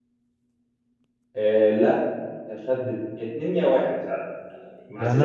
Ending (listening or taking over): taking over